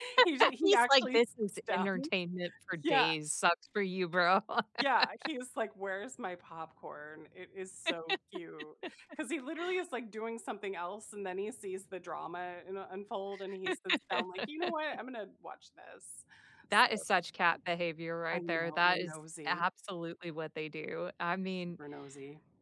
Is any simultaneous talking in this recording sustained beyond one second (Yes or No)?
Yes